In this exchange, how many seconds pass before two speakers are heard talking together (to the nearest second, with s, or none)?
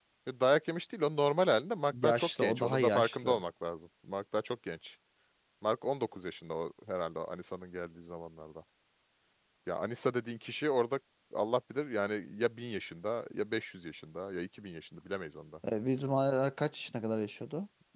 2 s